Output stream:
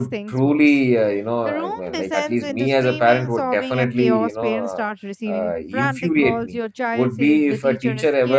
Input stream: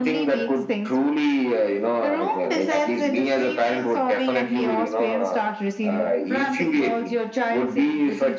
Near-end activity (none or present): none